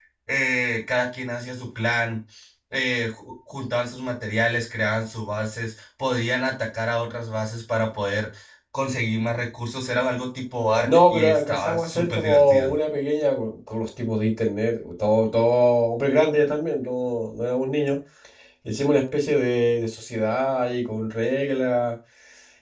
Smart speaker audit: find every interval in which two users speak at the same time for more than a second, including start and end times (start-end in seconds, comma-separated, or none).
10.8-12.7